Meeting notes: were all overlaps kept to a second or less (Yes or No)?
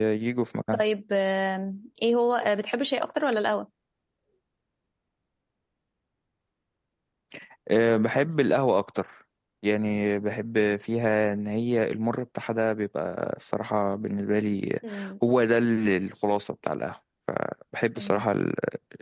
Yes